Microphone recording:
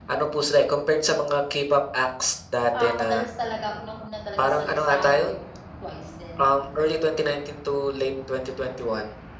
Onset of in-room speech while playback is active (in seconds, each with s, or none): 2.8 s